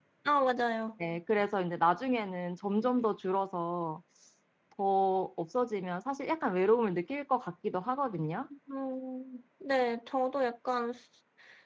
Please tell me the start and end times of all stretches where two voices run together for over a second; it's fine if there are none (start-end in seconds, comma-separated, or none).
none